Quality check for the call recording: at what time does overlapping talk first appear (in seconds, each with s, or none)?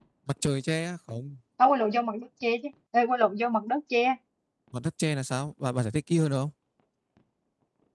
none